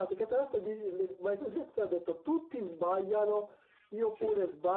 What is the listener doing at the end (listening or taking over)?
listening